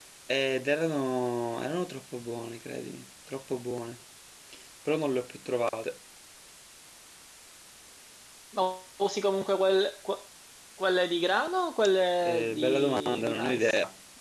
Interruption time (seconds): 12.2 s

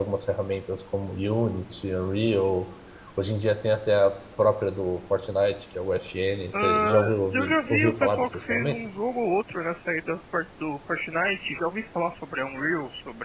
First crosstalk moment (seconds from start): 6.5 s

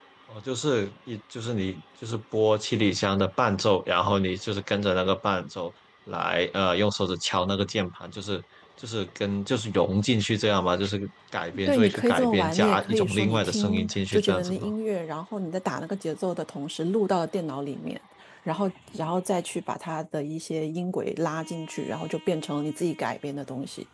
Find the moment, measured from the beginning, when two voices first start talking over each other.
11.7 s

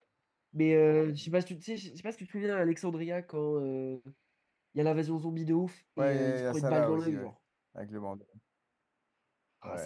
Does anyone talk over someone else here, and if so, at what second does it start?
6.0 s

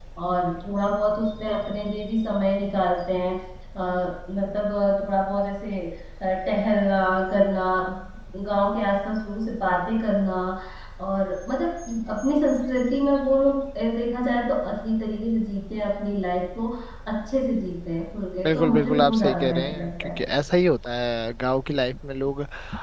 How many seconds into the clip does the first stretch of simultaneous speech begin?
18.4 s

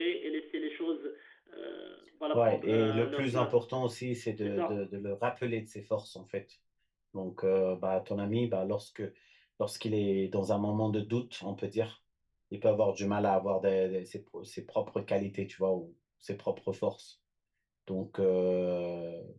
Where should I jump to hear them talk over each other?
2.3 s

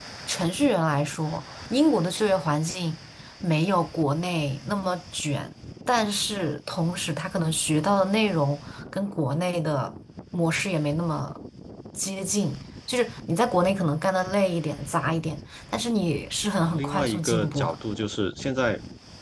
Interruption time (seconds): 16.6 s

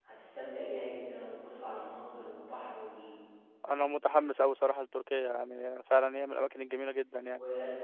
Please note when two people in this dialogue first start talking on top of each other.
none

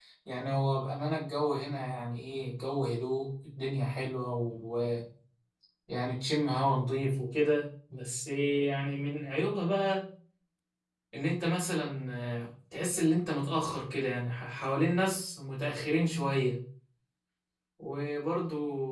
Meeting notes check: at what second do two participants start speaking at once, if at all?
none

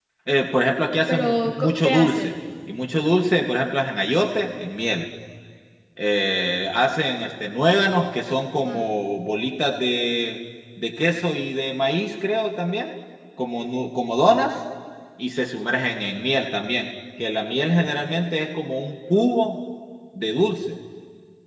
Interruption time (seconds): 1.1 s

